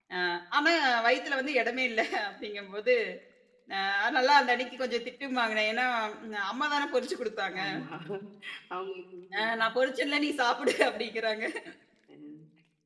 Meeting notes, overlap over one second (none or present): none